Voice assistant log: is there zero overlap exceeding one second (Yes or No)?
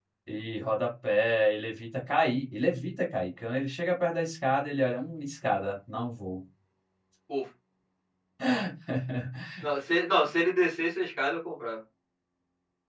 Yes